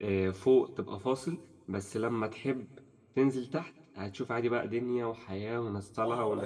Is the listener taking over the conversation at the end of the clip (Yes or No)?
Yes